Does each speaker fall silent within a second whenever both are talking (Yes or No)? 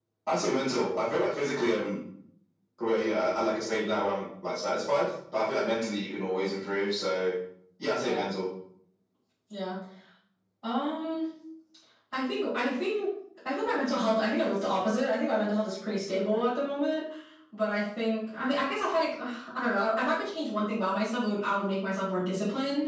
Yes